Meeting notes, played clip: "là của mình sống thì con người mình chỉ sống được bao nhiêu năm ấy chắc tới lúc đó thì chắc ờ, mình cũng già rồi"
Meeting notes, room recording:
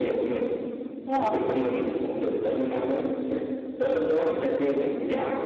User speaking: Yes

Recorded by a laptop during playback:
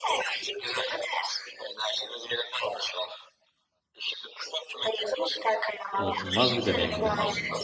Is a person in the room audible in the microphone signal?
Yes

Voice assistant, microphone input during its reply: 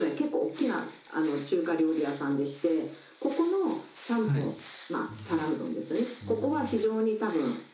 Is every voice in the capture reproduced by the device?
No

